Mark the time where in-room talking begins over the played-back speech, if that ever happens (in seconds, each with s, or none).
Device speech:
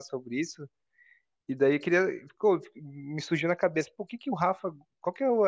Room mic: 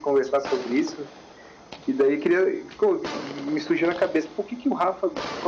none